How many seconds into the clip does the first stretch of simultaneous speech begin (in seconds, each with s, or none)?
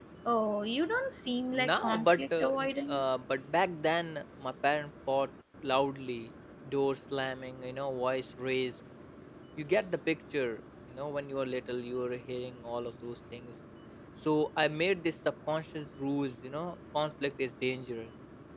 1.5 s